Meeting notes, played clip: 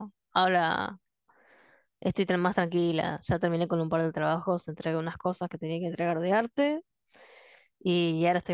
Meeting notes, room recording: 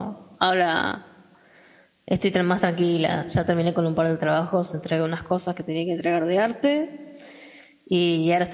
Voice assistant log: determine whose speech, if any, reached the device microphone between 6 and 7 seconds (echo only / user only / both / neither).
echo only